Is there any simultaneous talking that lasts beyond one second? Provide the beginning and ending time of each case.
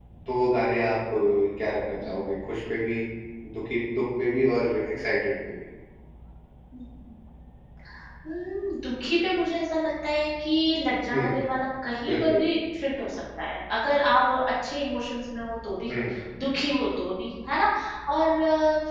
none

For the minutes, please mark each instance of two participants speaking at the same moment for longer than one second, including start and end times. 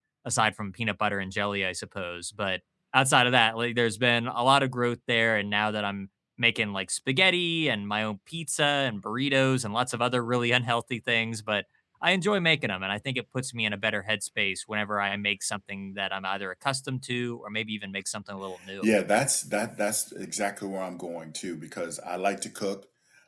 none

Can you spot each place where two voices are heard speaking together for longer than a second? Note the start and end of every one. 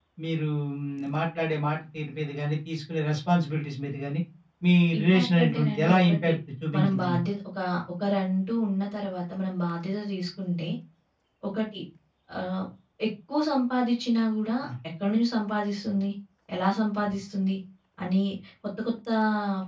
5.0-6.3

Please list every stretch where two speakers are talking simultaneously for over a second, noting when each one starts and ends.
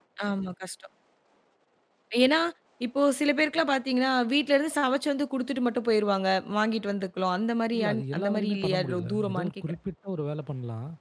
7.8-9.6

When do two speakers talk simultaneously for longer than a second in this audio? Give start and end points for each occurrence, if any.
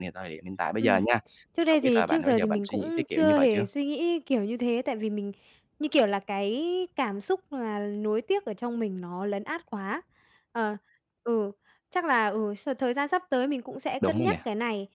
1.7-3.7

